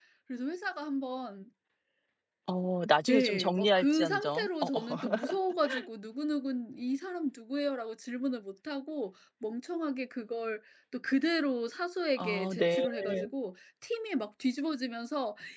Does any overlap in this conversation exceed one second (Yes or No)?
Yes